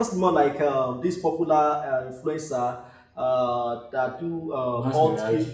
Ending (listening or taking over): listening